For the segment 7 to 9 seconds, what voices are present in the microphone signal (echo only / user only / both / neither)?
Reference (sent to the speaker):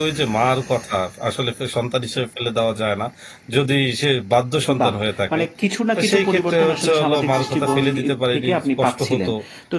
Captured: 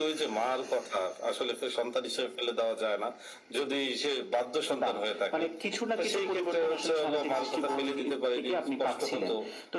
echo only